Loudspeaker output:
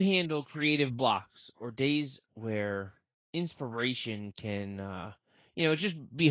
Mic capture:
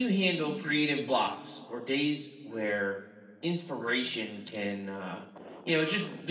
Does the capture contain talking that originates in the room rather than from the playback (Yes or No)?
No